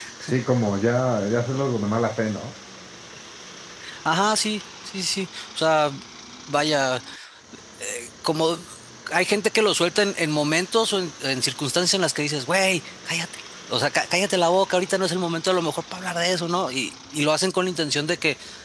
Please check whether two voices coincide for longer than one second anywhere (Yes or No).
No